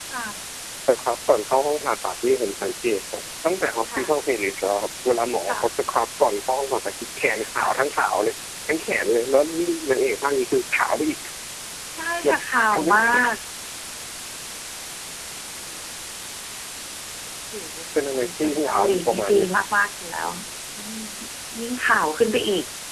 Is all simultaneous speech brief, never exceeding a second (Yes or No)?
No